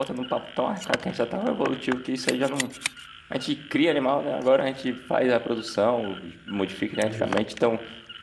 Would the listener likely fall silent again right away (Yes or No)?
Yes